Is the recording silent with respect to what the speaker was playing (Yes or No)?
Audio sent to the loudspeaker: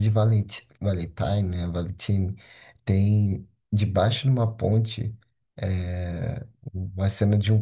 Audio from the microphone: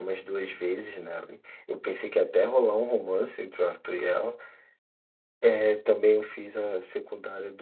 Yes